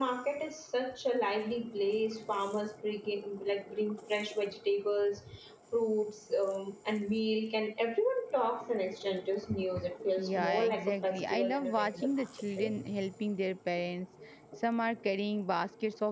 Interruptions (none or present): present